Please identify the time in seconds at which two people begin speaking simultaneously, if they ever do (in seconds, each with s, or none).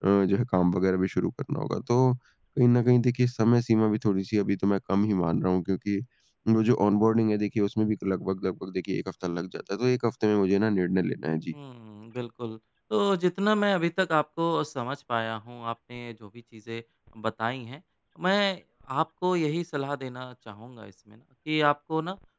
none